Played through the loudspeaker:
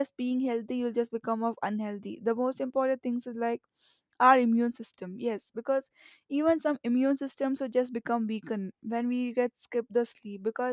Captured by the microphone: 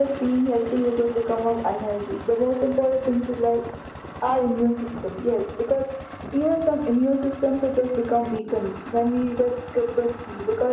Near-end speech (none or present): none